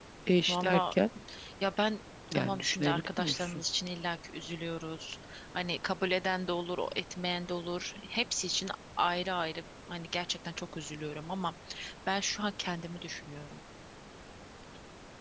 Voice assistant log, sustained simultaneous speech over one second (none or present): present